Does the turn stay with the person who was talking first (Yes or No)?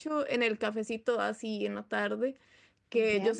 Yes